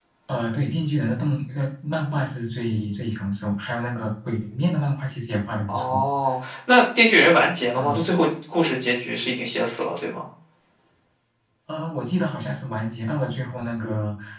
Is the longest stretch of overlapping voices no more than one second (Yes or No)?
Yes